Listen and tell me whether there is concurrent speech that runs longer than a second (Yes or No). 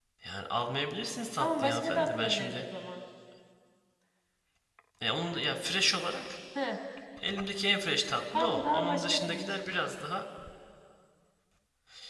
Yes